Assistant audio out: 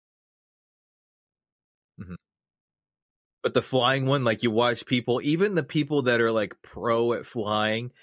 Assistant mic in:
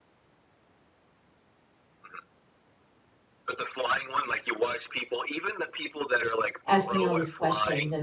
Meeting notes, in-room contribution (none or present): present